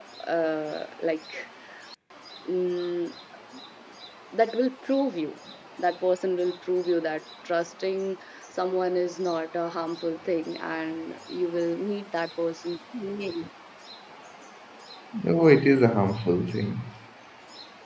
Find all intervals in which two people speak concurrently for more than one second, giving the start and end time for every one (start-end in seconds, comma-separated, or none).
none